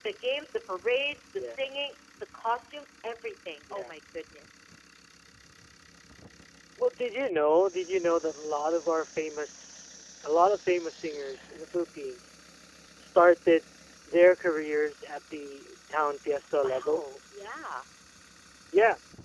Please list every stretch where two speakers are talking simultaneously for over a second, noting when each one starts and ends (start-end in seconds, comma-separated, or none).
none